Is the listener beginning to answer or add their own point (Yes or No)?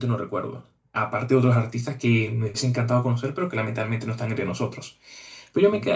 No